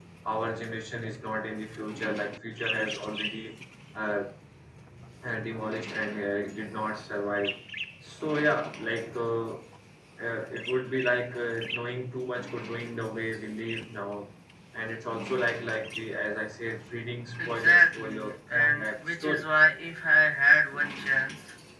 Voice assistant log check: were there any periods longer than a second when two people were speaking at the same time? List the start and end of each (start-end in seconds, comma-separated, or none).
17.4-19.5